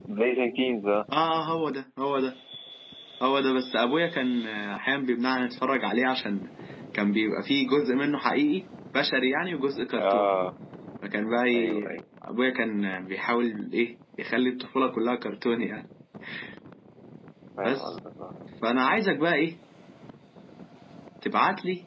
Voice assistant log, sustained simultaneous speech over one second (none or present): none